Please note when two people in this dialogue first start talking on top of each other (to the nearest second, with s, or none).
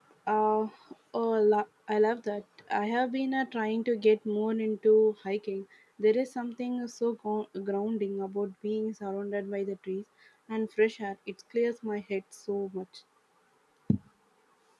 none